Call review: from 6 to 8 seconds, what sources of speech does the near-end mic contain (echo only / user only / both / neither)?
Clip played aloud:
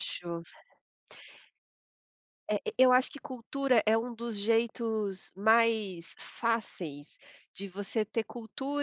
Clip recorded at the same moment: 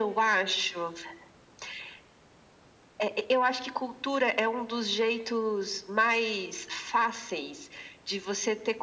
echo only